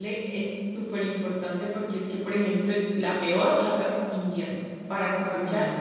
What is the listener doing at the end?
listening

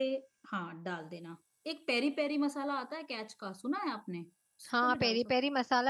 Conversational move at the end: taking over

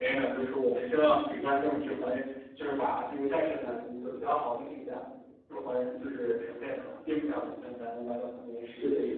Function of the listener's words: taking over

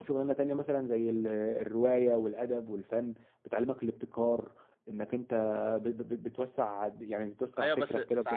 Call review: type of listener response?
taking over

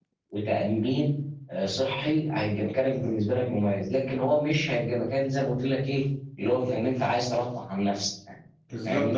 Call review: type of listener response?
taking over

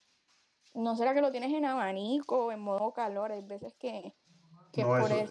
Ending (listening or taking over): taking over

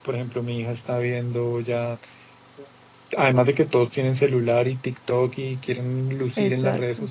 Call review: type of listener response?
listening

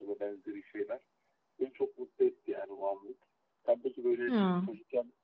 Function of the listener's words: listening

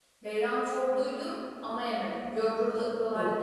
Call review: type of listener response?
taking over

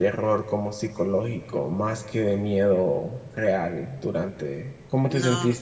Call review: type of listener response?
taking over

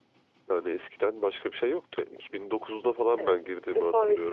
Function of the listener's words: taking over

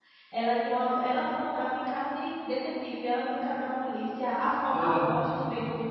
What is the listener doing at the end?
listening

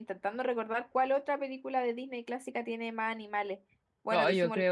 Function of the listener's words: taking over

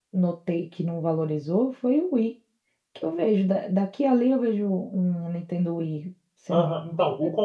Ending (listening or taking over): taking over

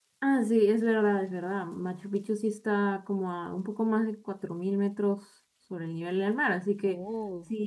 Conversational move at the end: listening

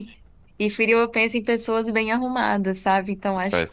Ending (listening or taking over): listening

